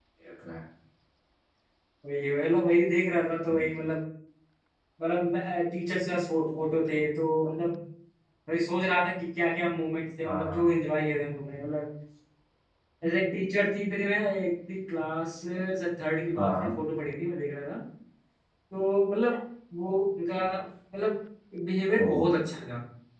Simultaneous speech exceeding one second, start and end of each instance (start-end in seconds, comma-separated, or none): none